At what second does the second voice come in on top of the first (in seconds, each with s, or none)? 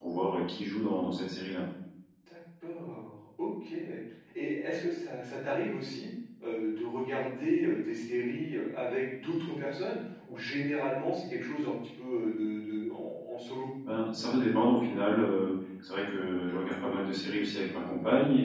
none